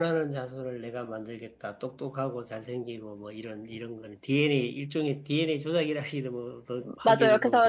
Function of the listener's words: taking over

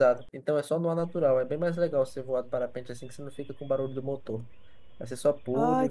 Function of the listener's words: taking over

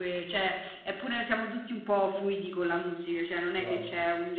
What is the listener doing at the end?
listening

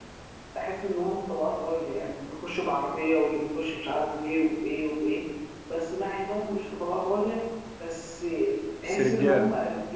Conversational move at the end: listening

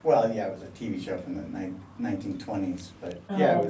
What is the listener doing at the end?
listening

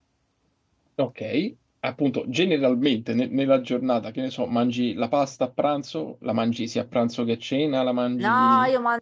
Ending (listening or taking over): taking over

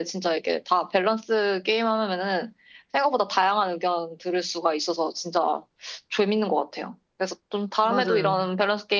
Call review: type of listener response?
listening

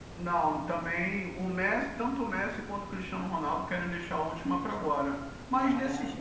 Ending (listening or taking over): listening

